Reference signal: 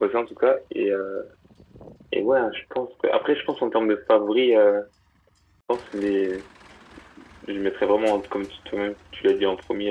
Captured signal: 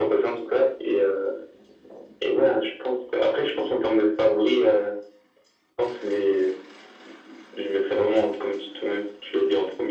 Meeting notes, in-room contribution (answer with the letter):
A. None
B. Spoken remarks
A